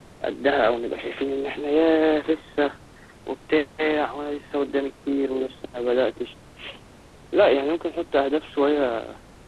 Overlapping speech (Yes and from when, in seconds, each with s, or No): No